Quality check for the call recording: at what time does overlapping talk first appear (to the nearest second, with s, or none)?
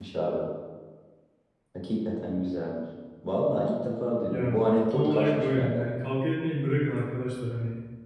4 s